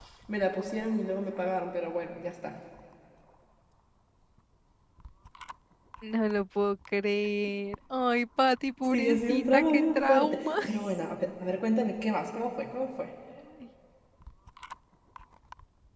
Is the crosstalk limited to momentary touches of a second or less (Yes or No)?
No